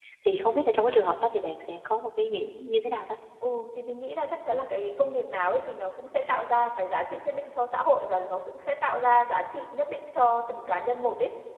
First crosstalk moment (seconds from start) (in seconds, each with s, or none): none